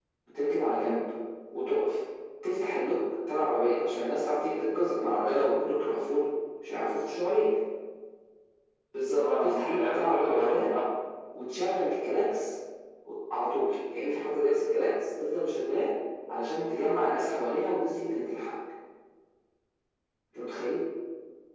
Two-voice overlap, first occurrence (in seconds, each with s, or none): 9.2 s